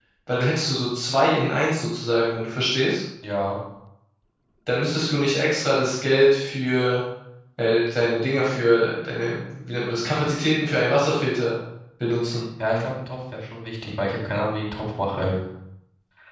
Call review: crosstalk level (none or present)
none